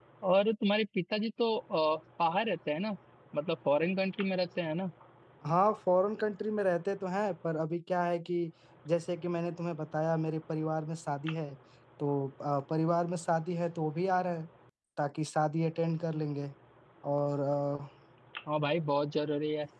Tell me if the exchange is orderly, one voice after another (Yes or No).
Yes